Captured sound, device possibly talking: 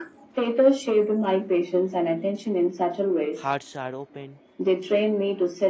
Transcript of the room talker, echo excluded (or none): hearts are open.